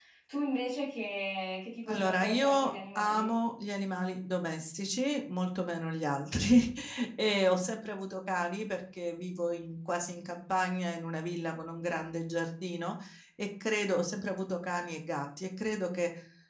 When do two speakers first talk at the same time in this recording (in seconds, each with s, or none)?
1.9 s